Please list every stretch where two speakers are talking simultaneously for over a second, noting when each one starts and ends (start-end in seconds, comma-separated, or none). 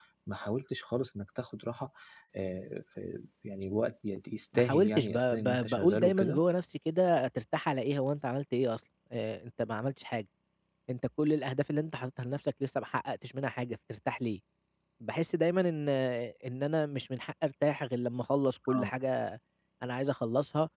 4.6-6.4